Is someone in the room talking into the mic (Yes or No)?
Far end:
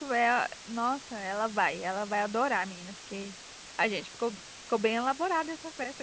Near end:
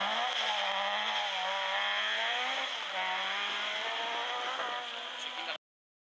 No